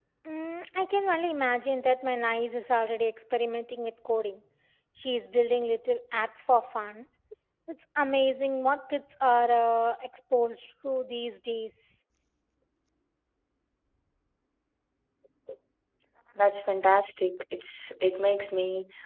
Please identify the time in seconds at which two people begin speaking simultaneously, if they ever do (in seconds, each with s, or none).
none